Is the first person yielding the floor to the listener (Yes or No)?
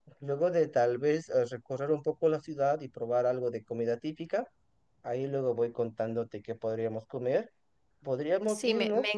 Yes